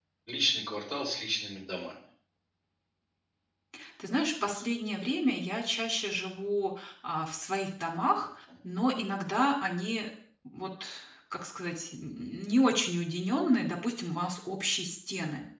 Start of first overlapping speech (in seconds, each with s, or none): none